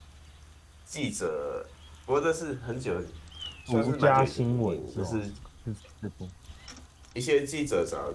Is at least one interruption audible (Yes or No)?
Yes